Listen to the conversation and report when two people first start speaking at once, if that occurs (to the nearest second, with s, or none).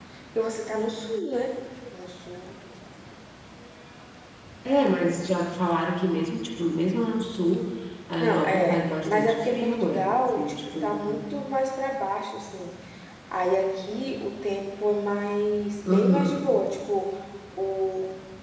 8 s